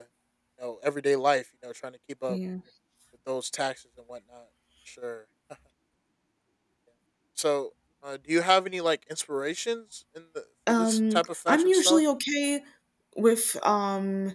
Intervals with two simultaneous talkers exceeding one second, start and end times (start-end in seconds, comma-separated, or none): 10.7-12.0